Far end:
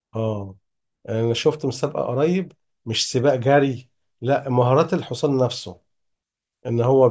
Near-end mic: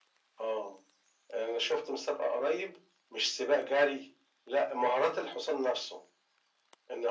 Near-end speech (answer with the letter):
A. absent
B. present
A